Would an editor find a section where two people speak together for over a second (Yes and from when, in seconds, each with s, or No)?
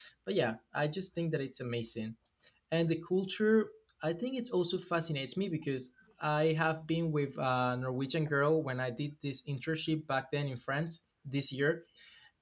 No